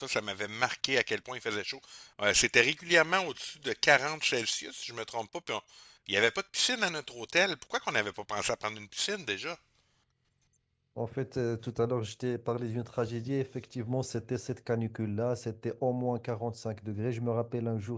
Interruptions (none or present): none